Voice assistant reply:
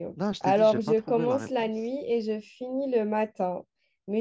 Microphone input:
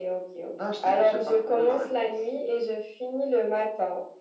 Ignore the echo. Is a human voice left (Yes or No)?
No